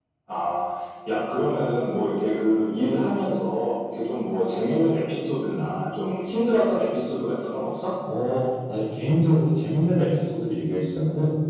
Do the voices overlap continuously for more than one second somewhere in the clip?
No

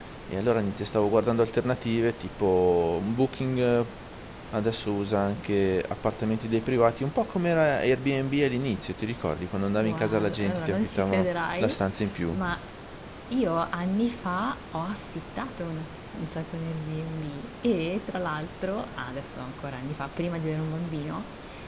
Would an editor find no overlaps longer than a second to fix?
No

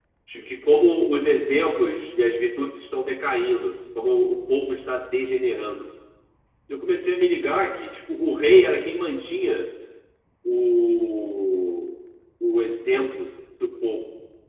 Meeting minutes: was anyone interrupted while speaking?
No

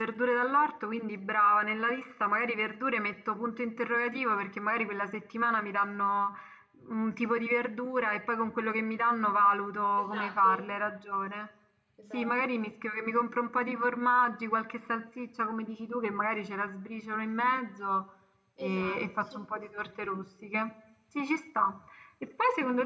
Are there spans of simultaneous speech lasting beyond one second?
Yes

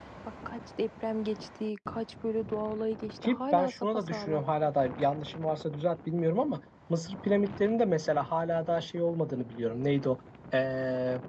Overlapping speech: Yes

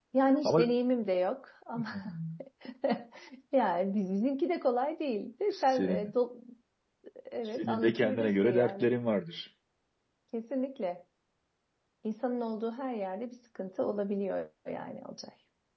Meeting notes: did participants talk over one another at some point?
Yes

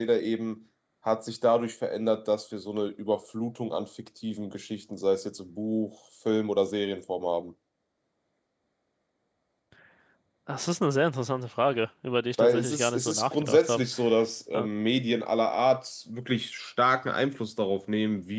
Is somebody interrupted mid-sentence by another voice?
Yes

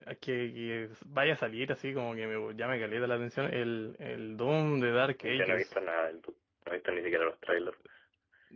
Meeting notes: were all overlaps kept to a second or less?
Yes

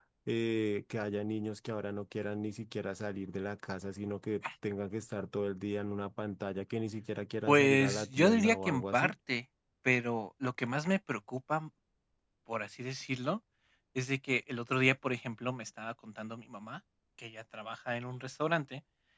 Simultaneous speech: Yes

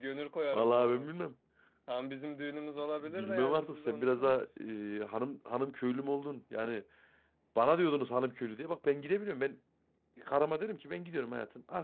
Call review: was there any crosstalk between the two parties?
Yes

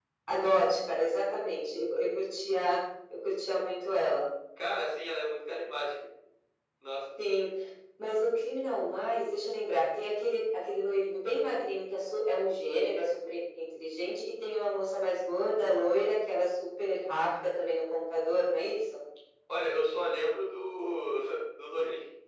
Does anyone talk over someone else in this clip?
No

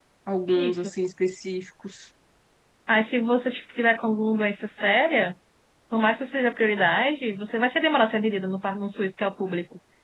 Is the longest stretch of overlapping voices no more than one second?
Yes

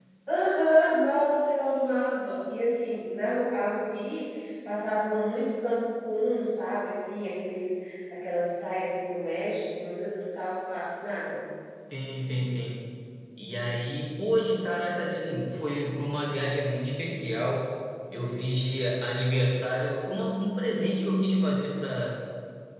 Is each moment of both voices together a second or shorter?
Yes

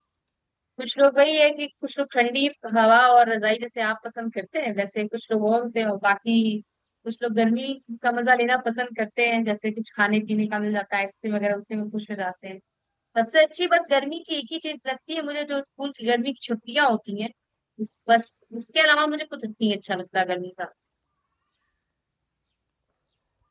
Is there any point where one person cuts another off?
No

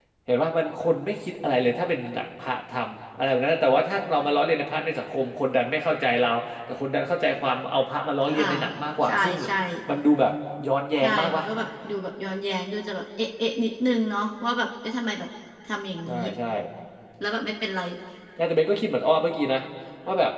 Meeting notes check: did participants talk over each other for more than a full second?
No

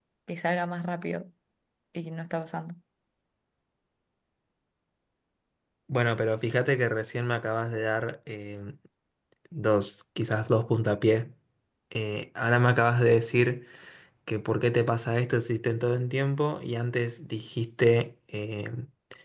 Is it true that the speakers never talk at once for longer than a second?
Yes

